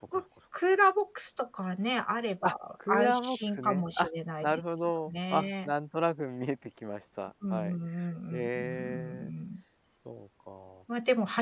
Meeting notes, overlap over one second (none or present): present